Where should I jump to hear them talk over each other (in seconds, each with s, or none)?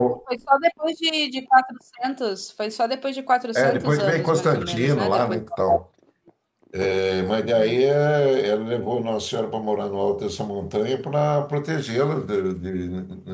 3.6 s